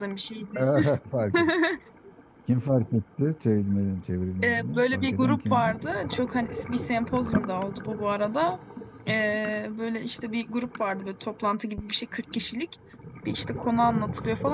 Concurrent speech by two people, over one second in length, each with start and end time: 4.4-5.7

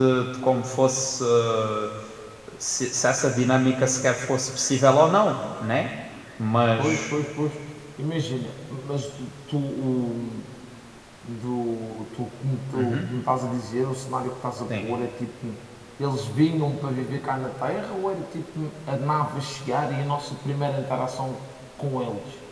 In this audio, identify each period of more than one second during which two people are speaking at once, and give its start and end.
none

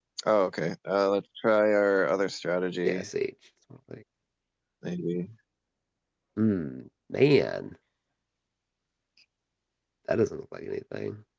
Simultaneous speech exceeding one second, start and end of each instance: none

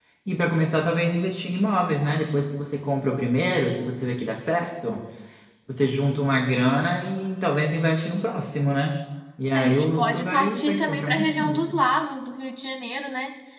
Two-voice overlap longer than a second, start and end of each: 9.5-11.8

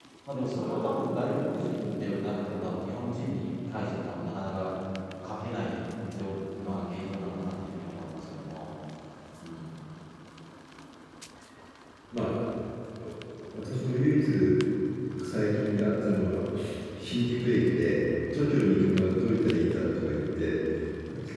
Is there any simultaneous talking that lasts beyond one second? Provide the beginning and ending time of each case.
none

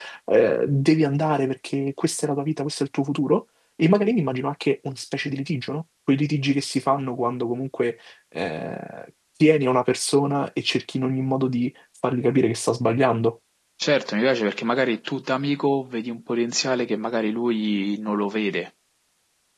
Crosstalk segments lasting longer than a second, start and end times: none

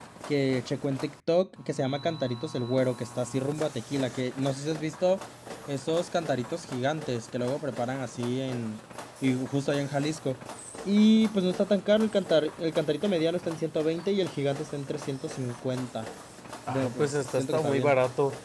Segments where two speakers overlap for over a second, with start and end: 16.7-17.9

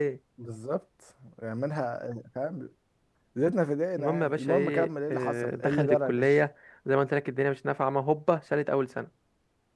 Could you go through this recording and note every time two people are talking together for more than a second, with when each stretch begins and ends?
4.0-6.4

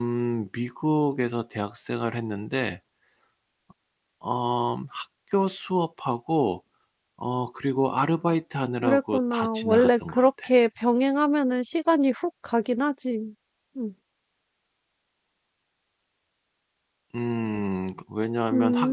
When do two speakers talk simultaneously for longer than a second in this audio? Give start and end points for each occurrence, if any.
8.8-10.5

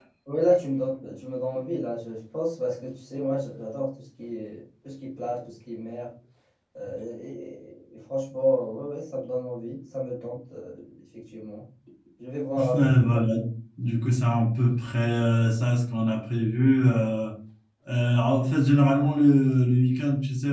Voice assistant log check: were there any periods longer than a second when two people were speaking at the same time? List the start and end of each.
none

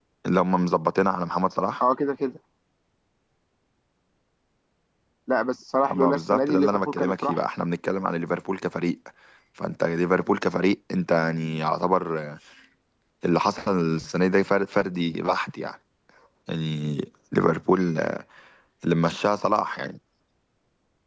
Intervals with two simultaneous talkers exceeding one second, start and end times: 5.9-7.4

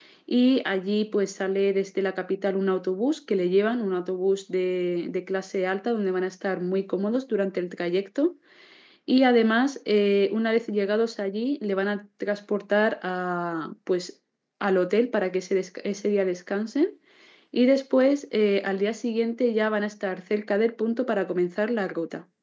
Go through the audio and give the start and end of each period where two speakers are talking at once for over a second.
none

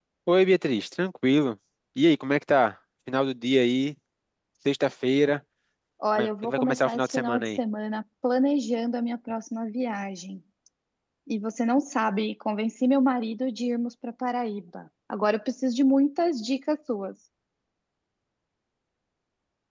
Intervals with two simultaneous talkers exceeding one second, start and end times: 6.2-7.6

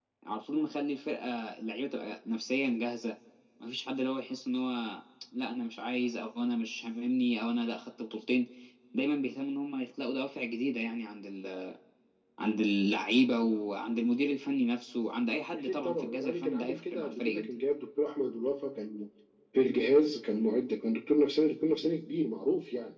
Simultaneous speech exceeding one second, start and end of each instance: 15.6-17.5

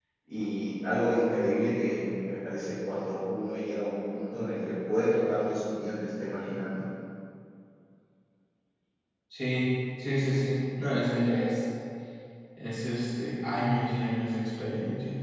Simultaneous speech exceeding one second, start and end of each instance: none

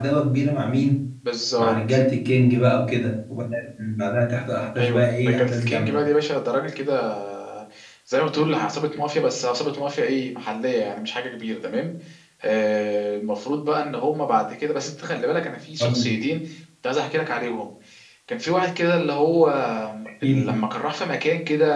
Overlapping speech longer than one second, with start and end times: 4.8-6.0

